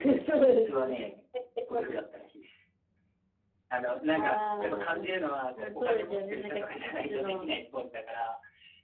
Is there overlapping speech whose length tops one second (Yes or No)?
Yes